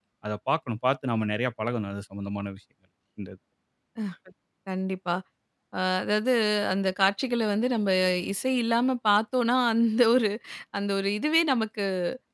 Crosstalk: none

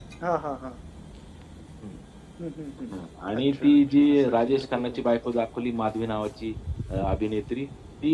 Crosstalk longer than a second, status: present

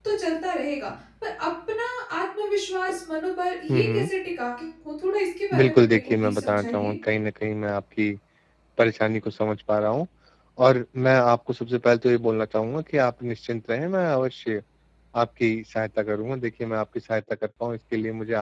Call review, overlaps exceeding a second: present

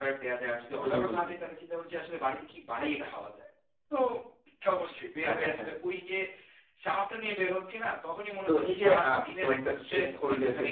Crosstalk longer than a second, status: present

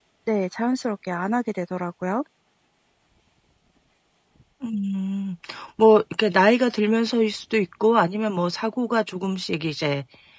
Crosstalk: none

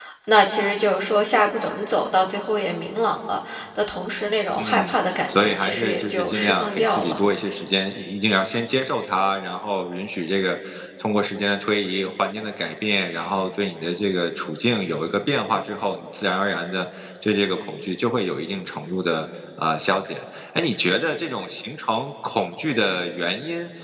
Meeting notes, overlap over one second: present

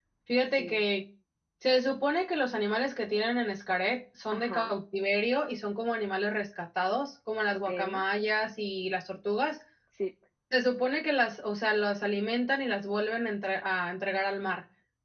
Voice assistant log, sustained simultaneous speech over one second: none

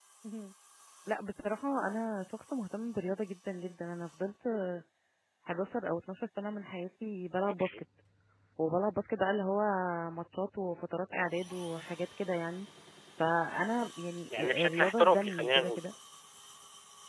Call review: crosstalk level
present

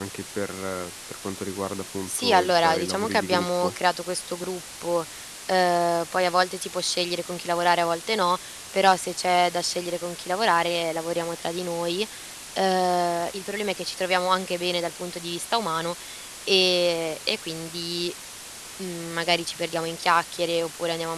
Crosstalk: present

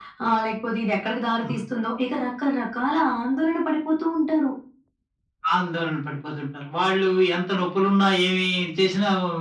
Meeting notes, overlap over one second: none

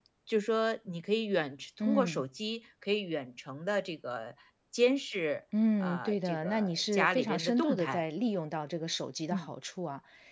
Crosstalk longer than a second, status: present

